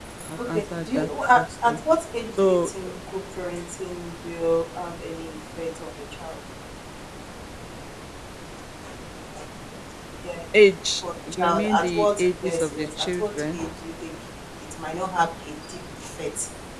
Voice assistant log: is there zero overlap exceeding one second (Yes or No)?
No